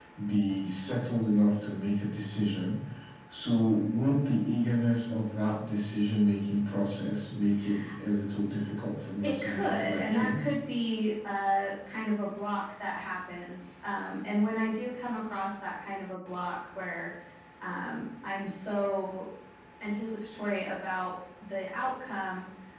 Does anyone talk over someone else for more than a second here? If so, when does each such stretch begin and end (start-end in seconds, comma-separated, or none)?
9.2-10.4